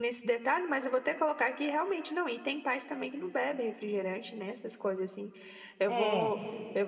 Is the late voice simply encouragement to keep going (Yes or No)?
Yes